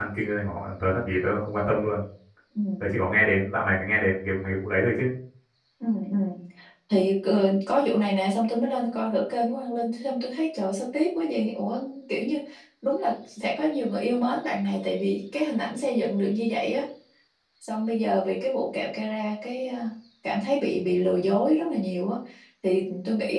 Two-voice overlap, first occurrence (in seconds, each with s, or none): none